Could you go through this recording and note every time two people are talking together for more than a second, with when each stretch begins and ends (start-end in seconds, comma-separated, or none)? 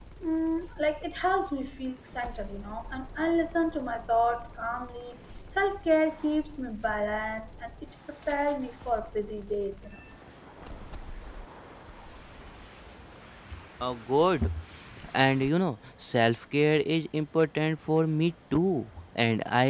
none